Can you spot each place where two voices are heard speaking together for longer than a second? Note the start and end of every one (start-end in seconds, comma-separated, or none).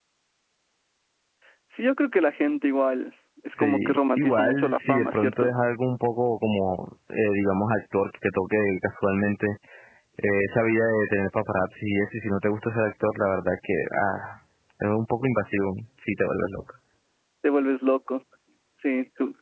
3.5-5.5